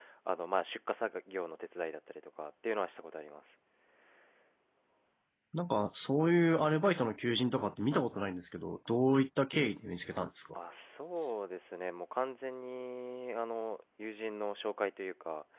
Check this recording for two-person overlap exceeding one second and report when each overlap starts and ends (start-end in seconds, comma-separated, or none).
none